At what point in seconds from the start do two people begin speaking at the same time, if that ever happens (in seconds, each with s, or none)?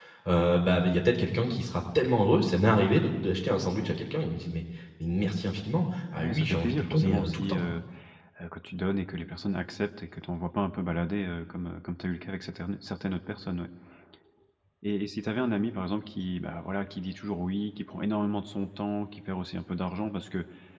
6.2 s